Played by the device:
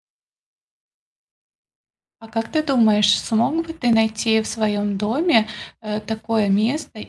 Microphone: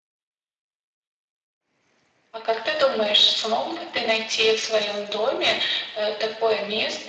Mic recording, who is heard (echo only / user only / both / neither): echo only